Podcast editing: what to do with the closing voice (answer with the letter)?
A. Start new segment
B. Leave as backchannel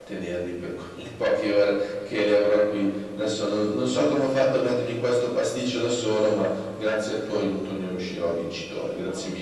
A